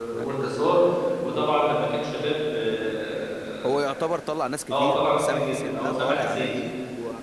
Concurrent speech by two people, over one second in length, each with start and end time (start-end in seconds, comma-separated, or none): 4.7-6.5